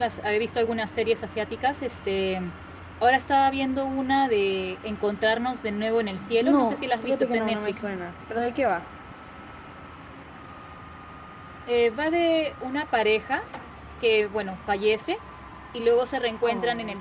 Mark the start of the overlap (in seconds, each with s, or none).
6.2 s